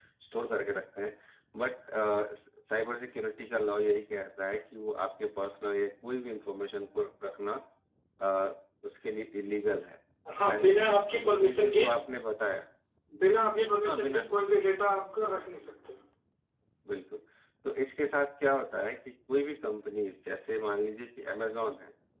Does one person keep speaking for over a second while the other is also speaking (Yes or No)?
Yes